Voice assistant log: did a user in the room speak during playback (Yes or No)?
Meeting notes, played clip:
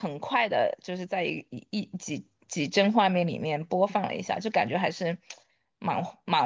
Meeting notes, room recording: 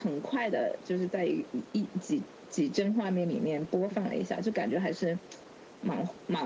No